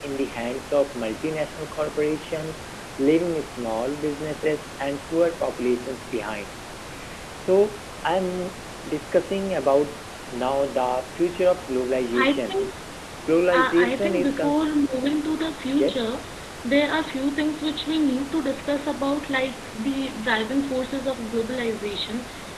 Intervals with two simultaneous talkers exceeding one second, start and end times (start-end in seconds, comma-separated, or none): 13.5-14.7